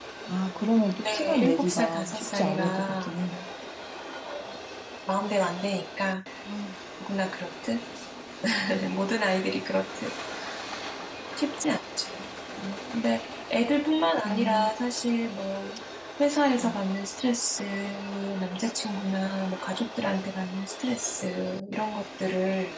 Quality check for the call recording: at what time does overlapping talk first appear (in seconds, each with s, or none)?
1.0 s